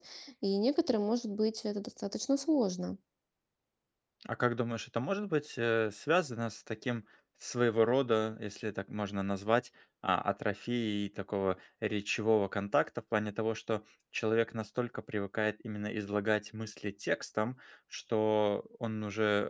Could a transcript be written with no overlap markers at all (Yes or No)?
Yes